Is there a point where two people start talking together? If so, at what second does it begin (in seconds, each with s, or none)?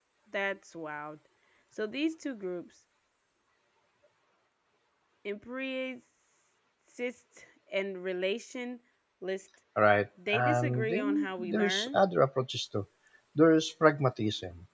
10.3 s